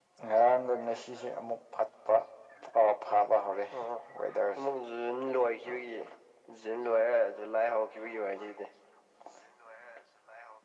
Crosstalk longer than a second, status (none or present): none